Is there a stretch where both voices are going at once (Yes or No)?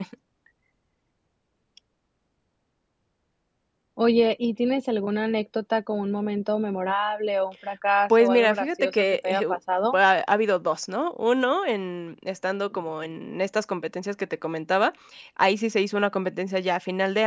Yes